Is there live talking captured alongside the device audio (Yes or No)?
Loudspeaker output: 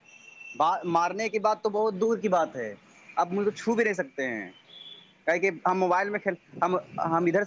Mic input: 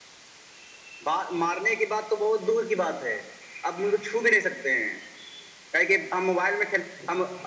No